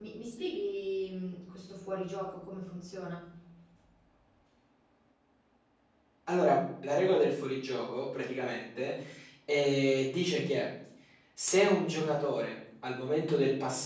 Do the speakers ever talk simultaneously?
No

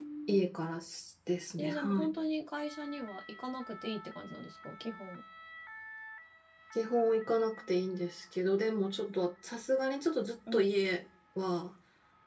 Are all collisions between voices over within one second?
Yes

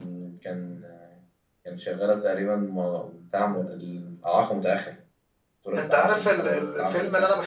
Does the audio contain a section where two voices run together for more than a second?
Yes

